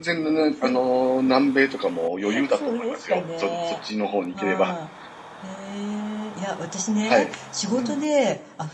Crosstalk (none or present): present